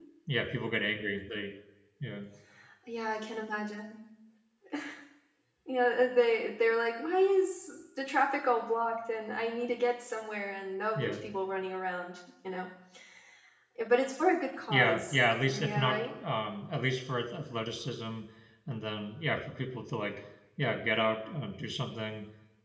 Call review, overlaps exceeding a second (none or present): present